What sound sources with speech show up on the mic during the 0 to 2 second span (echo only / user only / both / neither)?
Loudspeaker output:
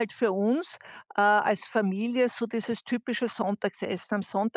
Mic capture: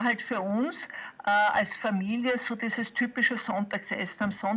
echo only